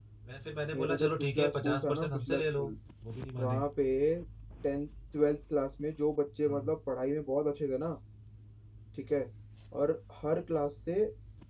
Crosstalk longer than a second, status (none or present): present